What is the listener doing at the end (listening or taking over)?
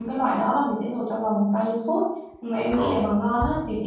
listening